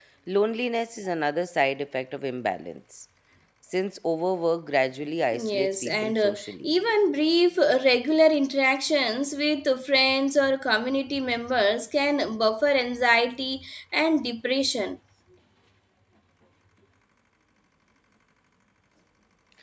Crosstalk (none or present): present